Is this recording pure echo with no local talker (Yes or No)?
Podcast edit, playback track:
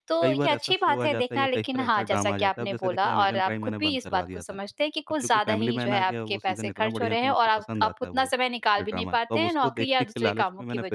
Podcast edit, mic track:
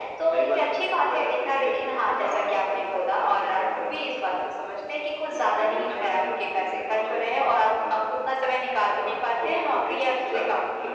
Yes